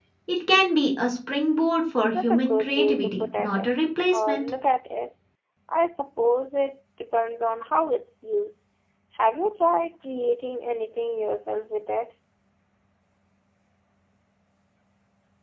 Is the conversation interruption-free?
No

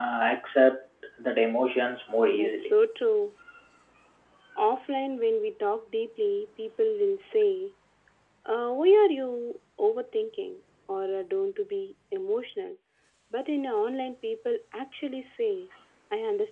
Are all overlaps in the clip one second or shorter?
Yes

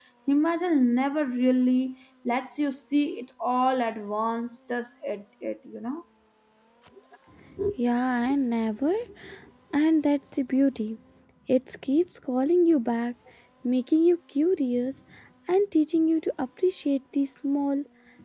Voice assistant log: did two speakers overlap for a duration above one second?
No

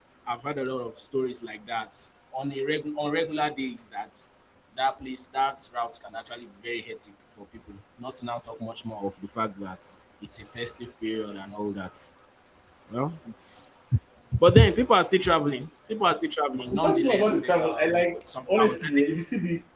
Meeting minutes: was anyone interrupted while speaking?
Yes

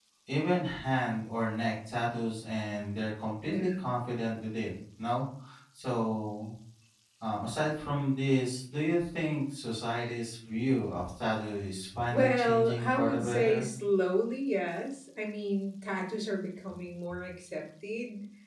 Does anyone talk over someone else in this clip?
Yes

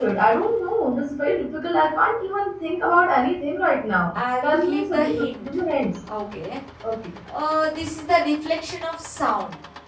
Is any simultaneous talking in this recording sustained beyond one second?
Yes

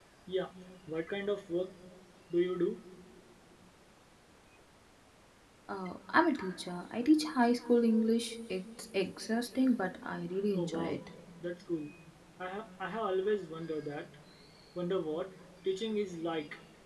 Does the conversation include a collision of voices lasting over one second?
No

